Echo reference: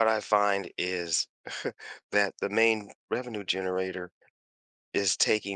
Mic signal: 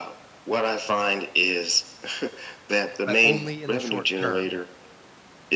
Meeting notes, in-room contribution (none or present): present